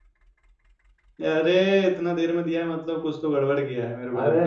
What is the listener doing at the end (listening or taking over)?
taking over